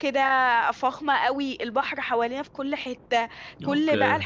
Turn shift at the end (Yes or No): No